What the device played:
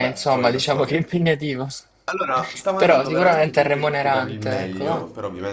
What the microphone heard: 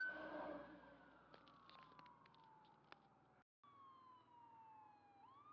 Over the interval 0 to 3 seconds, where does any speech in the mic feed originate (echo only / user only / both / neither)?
neither